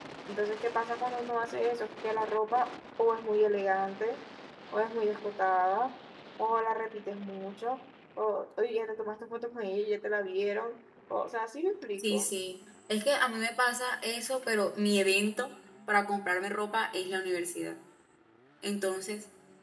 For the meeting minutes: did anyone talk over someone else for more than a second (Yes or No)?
No